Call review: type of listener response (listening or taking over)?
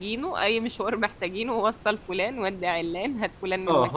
taking over